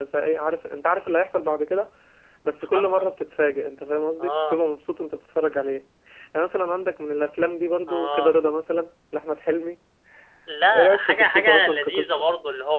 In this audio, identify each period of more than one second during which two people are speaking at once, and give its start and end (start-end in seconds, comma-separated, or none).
10.7-12.2